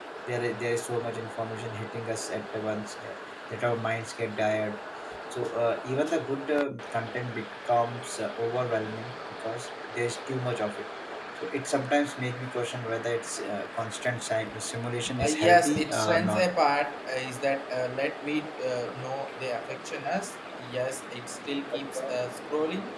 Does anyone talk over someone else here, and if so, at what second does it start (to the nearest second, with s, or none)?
15 s